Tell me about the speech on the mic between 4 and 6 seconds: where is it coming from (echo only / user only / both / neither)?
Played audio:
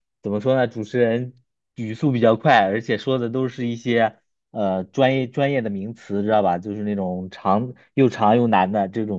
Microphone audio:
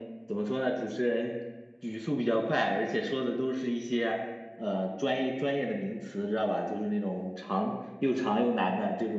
echo only